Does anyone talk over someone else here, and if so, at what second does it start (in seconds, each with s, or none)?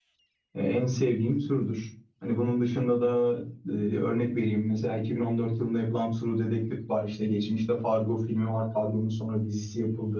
none